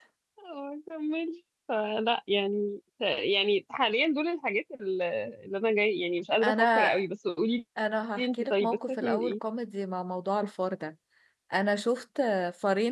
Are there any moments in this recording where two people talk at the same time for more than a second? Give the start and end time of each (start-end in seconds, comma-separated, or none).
8.2-9.4